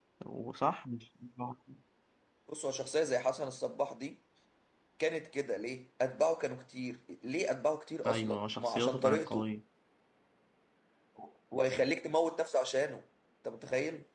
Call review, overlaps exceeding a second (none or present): present